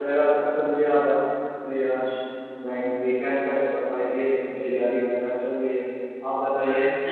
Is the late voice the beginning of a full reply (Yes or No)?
Yes